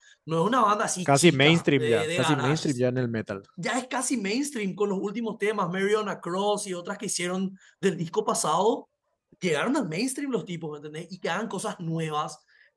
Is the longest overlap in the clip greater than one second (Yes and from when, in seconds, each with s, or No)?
Yes, from 1.1 s